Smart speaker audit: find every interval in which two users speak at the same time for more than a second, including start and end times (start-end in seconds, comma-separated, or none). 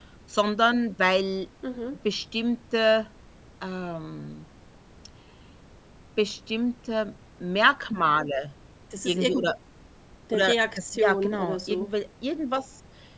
10.3-11.9